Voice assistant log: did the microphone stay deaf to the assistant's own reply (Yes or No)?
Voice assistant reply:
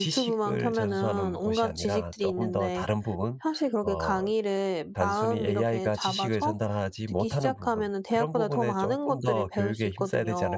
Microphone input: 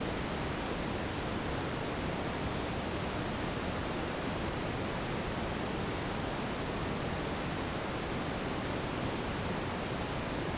Yes